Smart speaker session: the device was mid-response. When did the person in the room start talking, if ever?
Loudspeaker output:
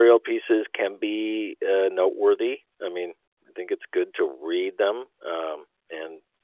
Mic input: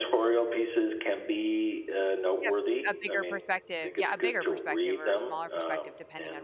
2.4 s

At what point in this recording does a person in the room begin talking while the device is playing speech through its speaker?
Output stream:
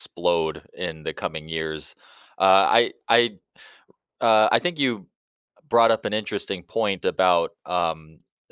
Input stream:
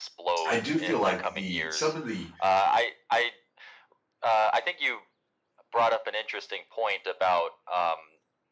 0.4 s

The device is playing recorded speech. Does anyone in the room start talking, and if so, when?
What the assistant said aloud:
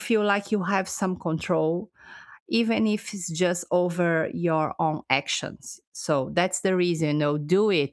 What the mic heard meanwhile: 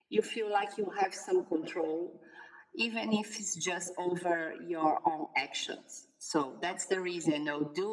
none

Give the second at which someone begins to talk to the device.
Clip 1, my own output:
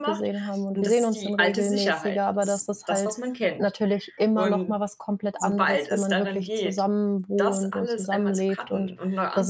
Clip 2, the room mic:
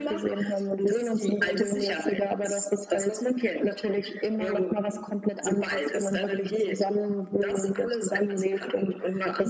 none

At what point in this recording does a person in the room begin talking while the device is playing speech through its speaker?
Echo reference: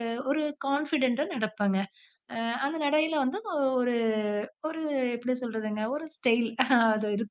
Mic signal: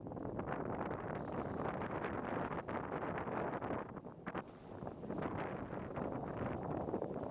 none

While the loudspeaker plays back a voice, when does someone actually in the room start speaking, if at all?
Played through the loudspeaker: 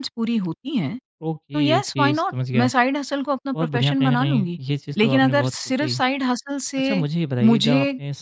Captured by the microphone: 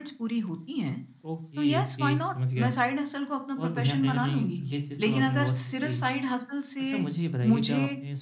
none

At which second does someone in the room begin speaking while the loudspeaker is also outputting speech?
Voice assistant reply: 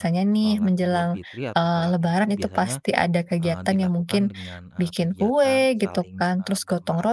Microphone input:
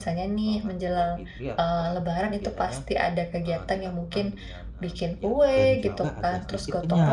5.5 s

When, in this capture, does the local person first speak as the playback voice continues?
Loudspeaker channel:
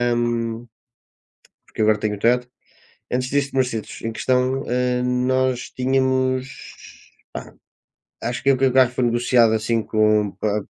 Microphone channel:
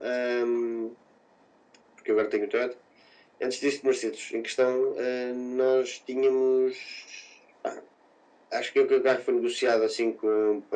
none

